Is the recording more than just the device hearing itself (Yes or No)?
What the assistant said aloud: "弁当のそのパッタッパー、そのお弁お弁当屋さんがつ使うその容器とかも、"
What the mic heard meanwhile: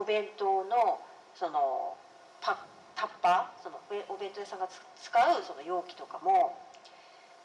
No